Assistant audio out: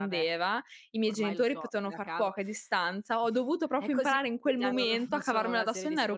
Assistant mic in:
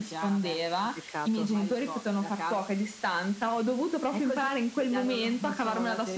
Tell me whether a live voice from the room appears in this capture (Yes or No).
Yes